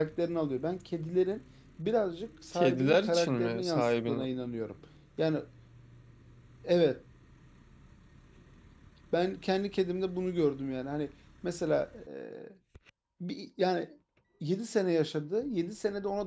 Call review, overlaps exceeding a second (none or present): present